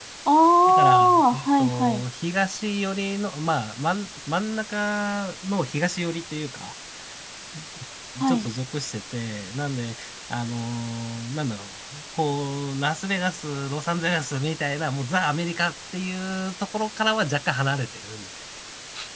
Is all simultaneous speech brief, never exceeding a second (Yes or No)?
No